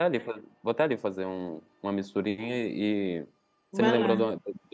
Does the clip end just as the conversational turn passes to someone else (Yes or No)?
No